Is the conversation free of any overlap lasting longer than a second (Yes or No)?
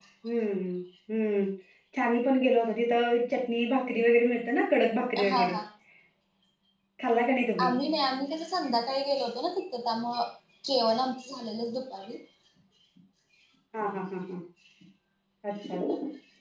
Yes